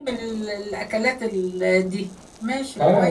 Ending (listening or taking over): taking over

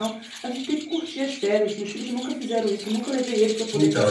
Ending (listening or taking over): taking over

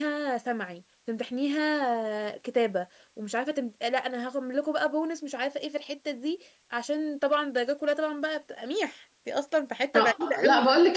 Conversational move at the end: taking over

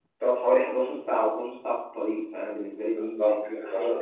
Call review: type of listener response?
taking over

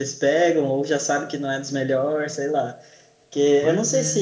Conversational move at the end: listening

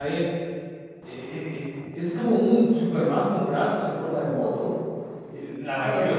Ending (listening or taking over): listening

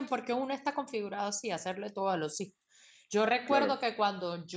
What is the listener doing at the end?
listening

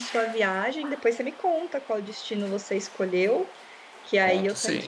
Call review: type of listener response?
listening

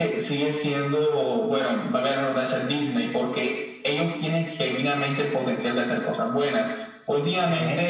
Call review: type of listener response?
listening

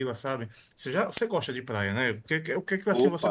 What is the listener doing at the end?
listening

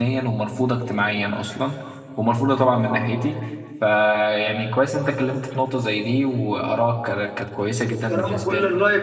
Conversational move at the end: taking over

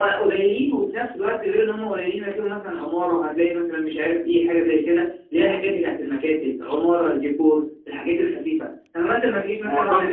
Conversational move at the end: listening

